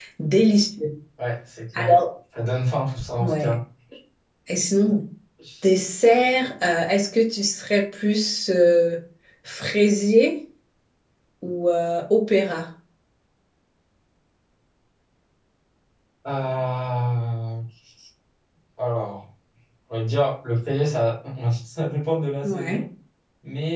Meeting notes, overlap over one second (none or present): none